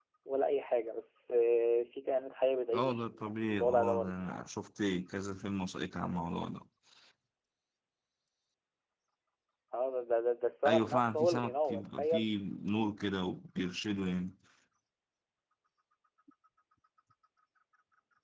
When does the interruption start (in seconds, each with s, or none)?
2.7 s